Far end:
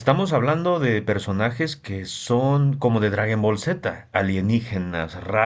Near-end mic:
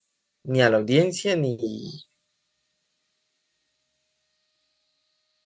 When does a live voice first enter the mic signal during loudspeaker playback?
0 s

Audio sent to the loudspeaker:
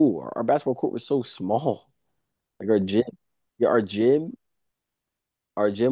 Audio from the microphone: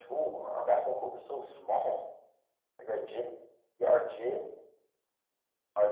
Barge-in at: none

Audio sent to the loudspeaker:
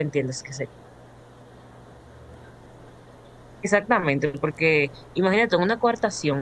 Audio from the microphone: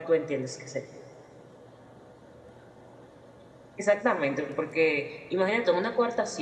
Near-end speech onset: none

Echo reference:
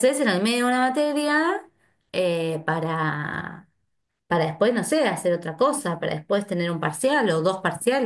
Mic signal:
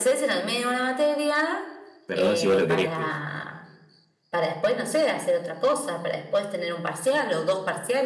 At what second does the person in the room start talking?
2 s

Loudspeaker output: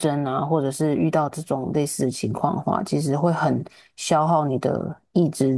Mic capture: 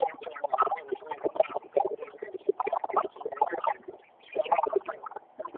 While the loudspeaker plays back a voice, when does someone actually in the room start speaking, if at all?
none

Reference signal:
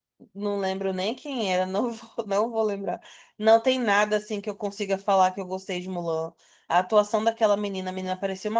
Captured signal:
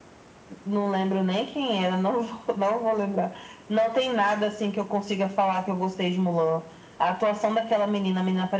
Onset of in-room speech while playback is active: none

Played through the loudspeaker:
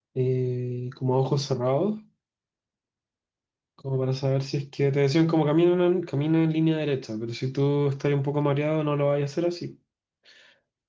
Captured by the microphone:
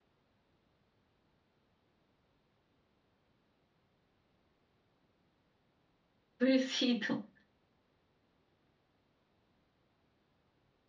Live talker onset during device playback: 6 s

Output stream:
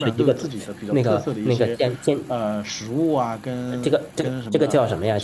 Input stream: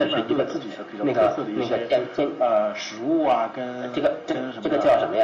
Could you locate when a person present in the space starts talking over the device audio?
none

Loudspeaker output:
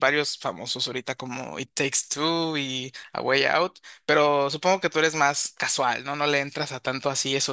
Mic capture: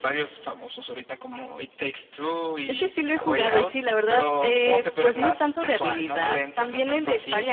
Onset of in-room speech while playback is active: 3 s

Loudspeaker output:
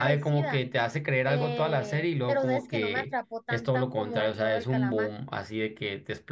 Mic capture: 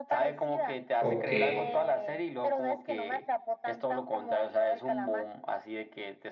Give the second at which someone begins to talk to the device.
1 s

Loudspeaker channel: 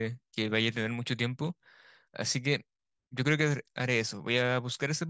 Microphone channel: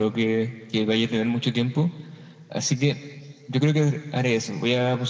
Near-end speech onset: none

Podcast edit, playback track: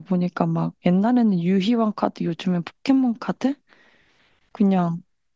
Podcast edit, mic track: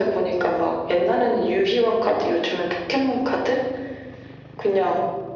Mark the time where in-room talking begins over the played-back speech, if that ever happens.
none

